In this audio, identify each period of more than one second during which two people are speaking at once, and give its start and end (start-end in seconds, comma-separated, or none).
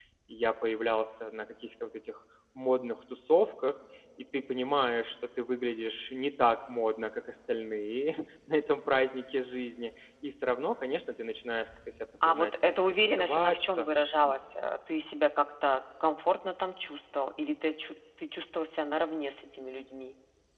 12.2-13.8